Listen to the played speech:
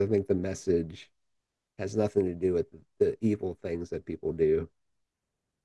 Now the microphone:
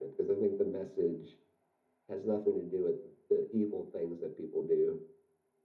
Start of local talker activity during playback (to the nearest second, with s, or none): none